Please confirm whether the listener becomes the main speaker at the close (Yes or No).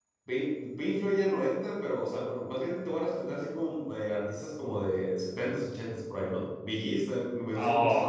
Yes